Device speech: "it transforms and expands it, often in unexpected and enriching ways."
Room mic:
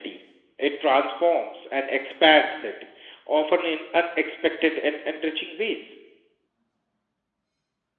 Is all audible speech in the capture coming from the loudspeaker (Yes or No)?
Yes